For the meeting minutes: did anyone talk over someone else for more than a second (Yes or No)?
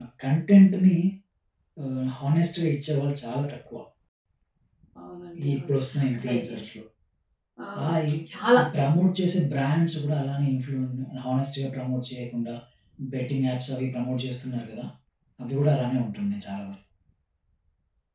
No